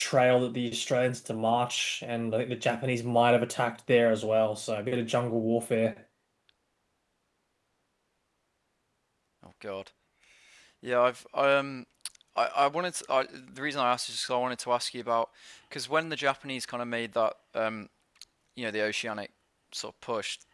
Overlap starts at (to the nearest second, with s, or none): none